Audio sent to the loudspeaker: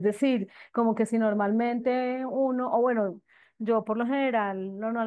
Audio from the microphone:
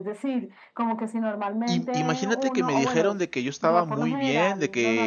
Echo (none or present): present